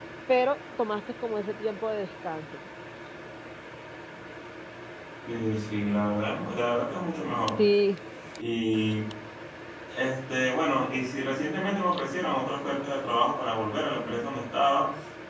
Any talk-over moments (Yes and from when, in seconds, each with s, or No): No